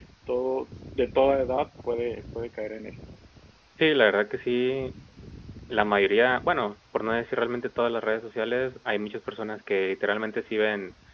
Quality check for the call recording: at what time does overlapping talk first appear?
none

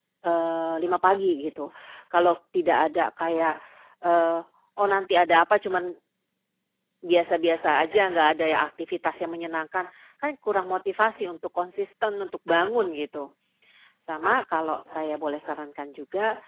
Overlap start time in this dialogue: none

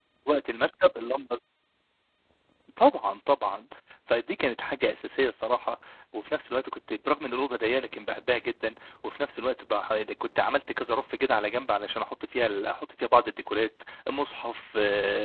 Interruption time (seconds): none

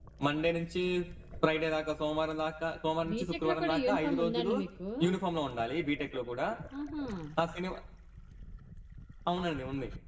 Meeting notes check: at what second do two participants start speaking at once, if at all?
3.0 s

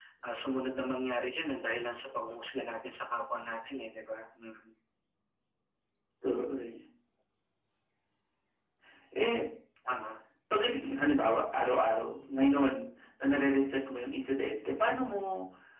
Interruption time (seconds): none

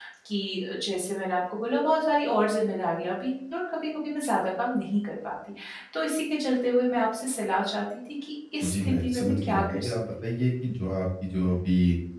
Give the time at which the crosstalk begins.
8.6 s

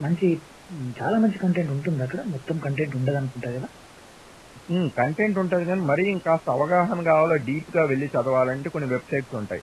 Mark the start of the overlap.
none

